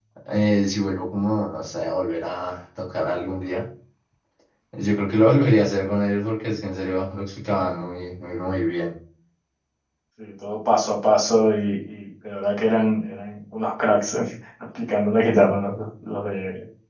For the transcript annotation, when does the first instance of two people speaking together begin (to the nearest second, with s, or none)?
none